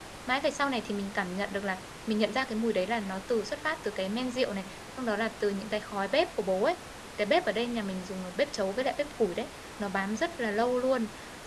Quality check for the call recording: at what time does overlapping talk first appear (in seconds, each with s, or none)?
none